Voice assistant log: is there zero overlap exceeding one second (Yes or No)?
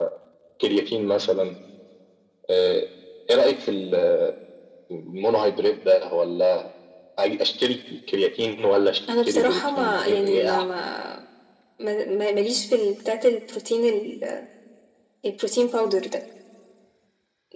No